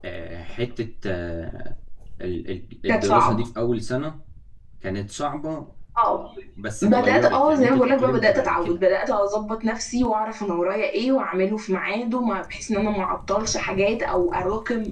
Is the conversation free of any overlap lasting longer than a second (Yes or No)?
No